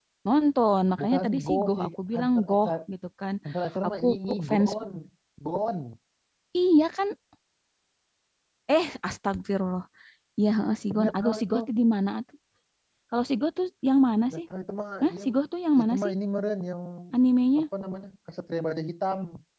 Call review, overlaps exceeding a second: present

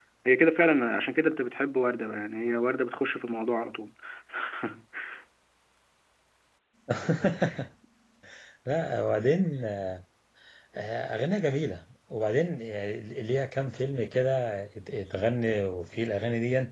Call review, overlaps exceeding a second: none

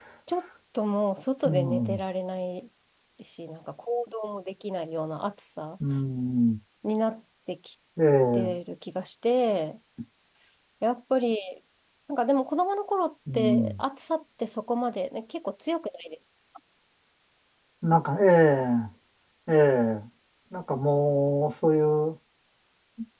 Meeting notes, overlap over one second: none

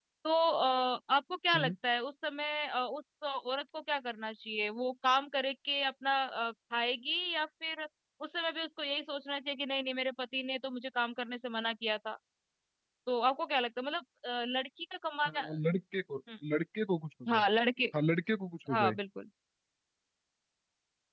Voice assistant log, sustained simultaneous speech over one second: none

